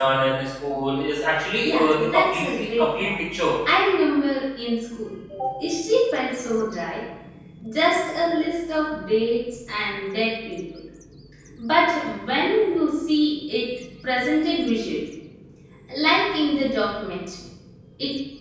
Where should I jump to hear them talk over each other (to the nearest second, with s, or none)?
2 s